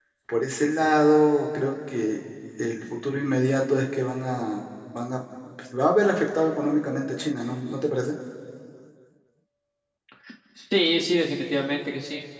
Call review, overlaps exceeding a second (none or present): none